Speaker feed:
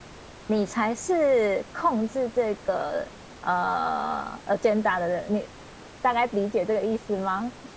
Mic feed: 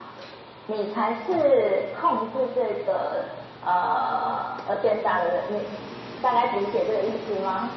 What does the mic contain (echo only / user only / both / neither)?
echo only